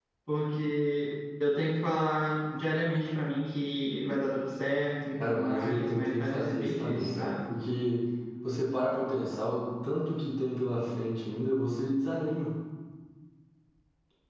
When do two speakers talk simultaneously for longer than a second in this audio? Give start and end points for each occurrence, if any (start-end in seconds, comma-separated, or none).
5.2-7.3